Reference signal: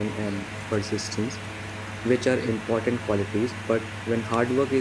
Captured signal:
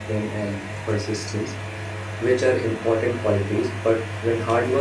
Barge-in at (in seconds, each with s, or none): none